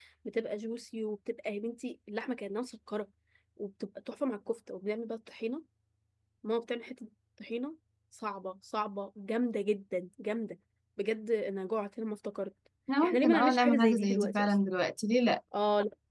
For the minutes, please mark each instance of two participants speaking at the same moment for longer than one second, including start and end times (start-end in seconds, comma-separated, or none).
13.0-14.5